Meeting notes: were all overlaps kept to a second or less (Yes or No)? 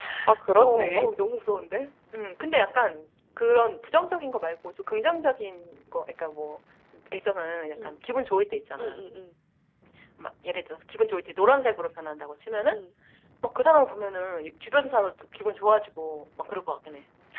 Yes